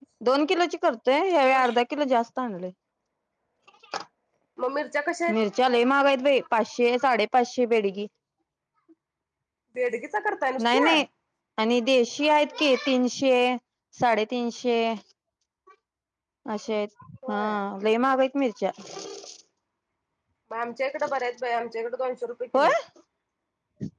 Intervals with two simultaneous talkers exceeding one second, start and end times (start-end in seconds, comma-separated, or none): none